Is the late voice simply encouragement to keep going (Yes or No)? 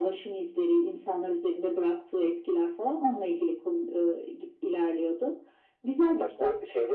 No